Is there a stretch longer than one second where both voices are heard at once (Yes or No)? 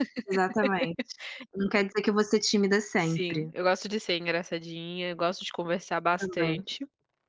No